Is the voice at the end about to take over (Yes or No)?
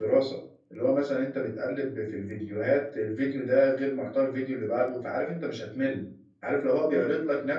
No